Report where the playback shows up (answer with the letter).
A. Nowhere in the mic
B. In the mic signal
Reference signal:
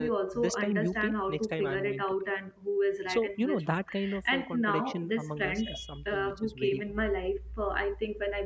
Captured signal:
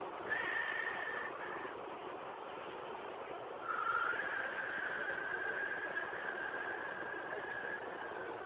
A